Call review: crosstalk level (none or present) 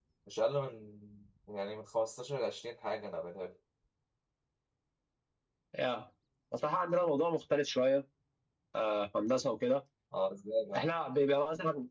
none